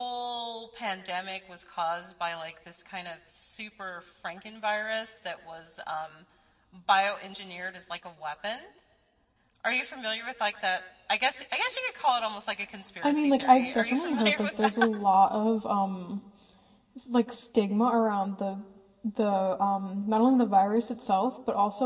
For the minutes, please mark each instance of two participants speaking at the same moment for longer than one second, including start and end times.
13.0-14.5

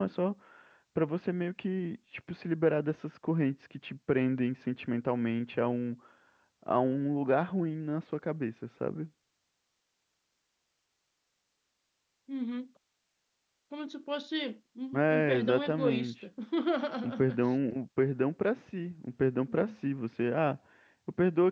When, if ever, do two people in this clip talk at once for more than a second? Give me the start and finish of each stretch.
14.9-16.1

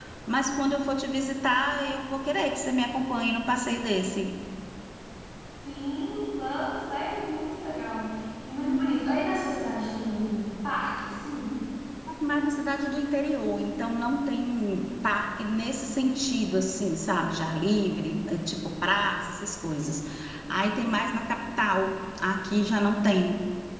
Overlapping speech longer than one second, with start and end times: none

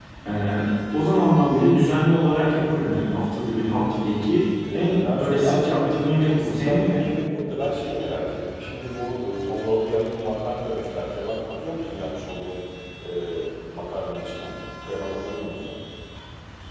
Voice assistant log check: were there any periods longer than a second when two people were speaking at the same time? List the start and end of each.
4.7-7.0

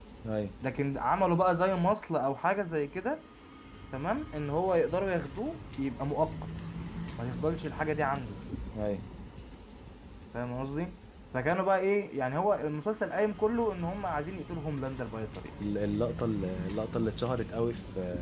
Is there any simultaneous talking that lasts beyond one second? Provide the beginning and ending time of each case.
none

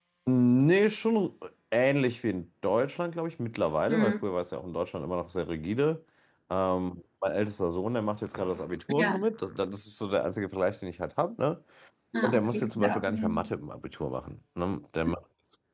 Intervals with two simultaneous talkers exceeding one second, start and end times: 12.2-13.5

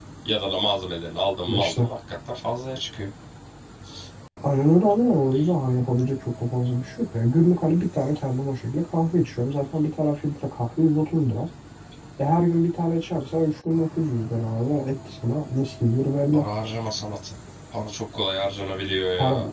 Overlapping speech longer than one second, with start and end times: none

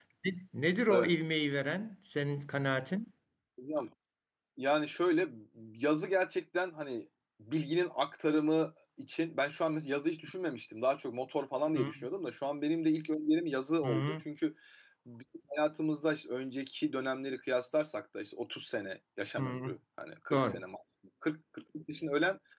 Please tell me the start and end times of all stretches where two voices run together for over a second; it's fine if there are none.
none

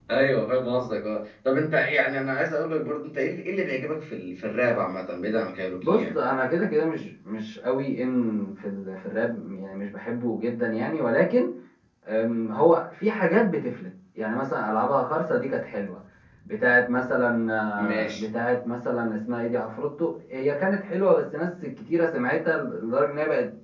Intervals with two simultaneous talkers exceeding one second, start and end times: none

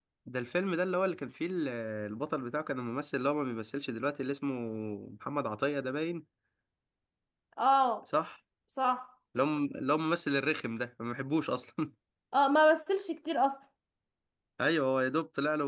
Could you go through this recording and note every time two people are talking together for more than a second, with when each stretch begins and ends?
none

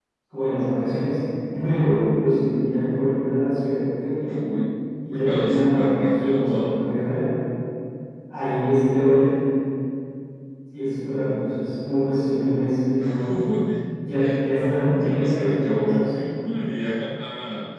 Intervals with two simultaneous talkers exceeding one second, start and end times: 5.1-6.8, 14.5-16.0

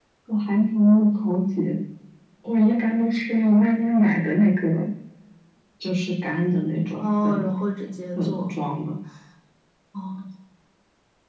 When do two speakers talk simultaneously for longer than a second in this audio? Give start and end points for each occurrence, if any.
none

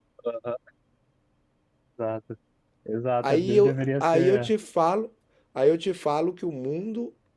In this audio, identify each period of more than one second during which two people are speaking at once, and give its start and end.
3.2-4.5

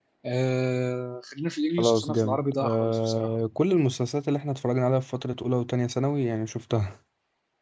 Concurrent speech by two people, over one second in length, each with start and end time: 1.8-3.3

